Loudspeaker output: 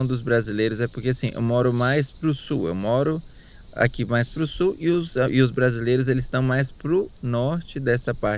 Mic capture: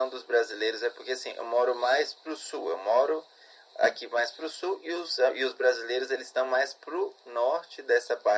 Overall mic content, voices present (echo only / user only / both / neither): echo only